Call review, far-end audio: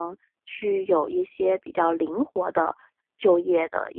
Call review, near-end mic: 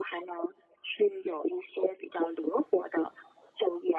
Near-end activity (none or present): none